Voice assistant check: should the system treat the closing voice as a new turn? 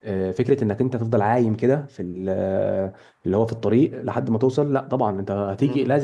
No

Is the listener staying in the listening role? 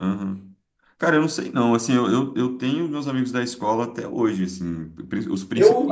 No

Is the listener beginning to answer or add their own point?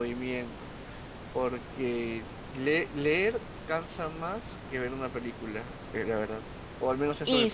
Yes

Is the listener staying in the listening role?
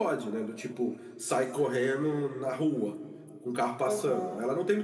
Yes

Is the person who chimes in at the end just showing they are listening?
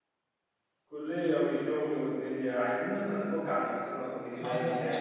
No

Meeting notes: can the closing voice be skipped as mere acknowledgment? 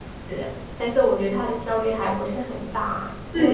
No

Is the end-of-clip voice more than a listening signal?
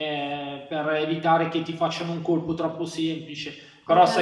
Yes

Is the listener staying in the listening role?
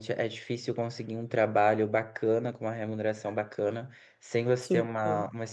Yes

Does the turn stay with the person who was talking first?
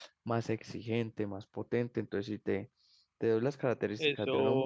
Yes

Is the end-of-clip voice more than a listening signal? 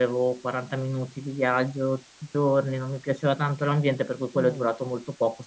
No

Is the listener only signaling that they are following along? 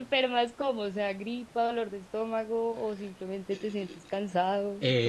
No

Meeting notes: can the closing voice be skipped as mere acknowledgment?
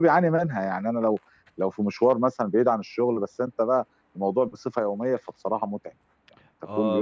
No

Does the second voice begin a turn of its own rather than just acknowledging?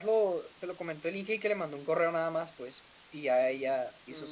Yes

